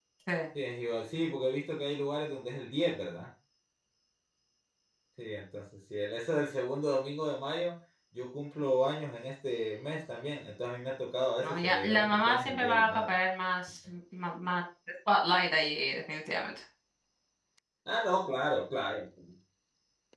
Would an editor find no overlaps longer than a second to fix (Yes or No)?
No